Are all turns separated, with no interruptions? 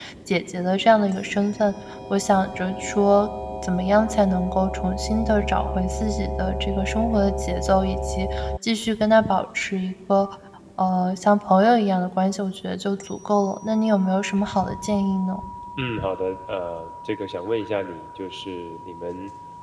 Yes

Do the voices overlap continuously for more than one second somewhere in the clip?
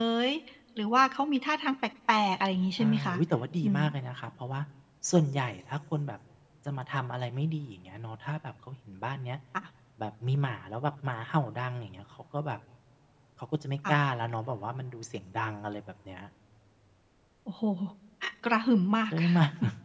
No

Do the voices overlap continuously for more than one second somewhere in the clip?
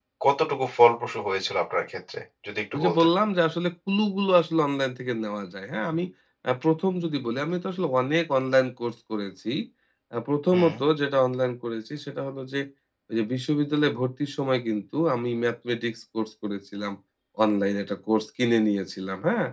No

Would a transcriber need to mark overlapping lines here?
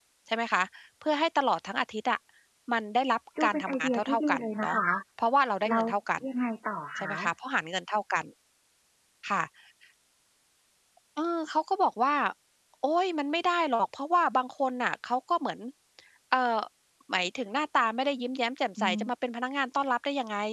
Yes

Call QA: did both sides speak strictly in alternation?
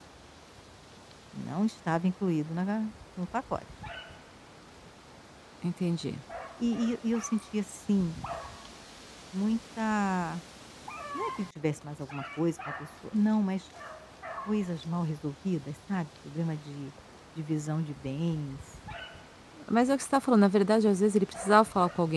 Yes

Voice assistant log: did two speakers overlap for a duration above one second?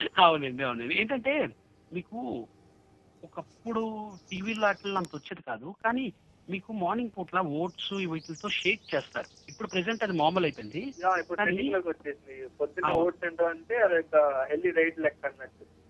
No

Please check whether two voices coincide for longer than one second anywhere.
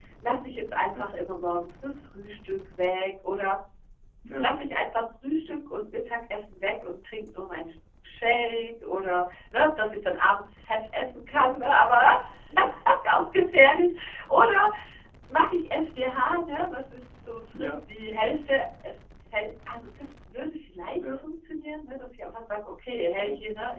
No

